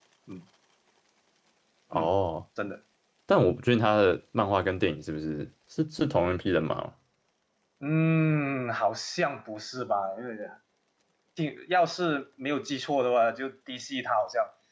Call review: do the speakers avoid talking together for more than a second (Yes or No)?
Yes